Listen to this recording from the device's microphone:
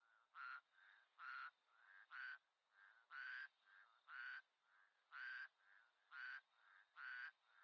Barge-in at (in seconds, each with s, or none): none